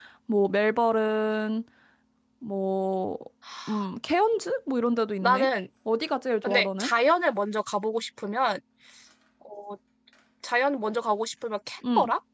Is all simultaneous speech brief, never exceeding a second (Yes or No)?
Yes